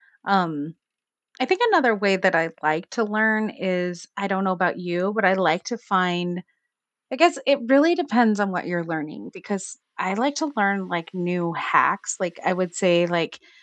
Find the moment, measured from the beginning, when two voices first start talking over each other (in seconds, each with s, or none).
none